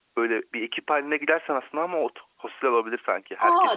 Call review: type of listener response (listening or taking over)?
taking over